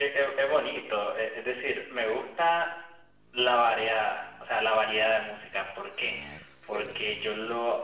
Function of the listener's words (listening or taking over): listening